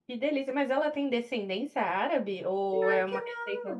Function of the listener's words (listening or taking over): taking over